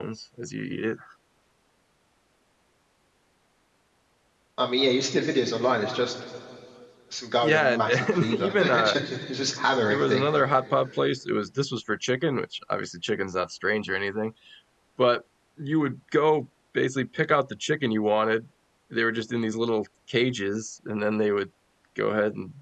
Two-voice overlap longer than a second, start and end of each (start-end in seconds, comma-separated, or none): 7.4-8.9